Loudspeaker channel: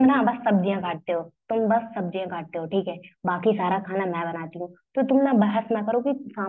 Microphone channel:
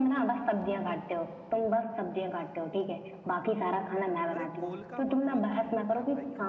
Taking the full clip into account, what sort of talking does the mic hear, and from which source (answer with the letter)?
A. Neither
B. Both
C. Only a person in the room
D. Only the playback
B